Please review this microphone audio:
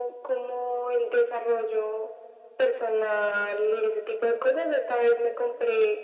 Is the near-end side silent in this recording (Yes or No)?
Yes